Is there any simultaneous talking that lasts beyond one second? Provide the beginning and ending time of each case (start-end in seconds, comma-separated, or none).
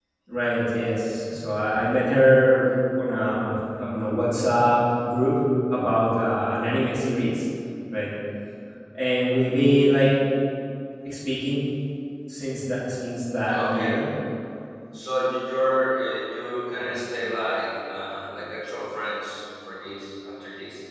none